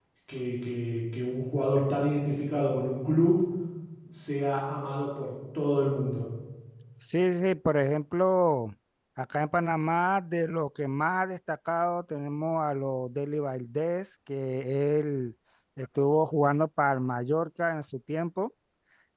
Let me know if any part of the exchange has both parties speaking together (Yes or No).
No